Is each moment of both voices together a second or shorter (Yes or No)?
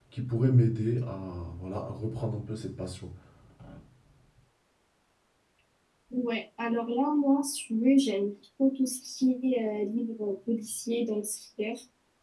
Yes